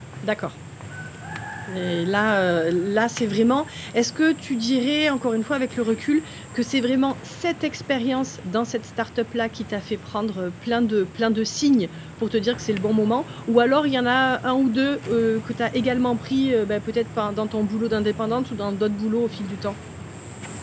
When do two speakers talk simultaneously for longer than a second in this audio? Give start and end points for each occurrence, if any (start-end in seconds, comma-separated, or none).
none